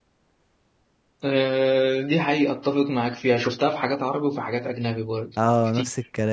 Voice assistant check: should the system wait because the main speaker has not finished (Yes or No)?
No